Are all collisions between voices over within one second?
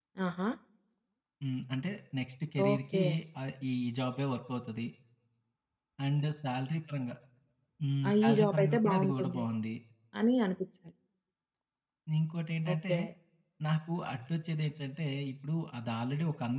No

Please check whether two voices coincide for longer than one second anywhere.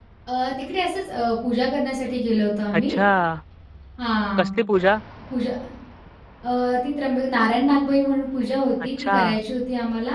No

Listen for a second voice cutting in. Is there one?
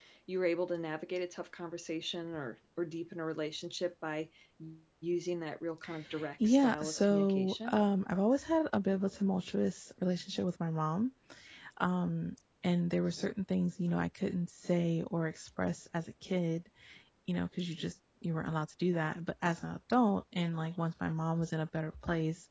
Yes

